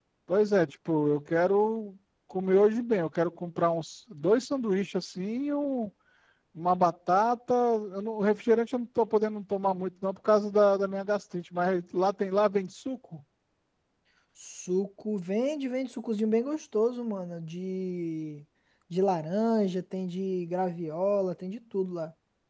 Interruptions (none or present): none